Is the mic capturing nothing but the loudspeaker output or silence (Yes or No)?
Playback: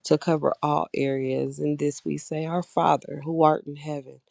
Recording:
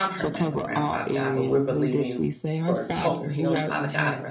No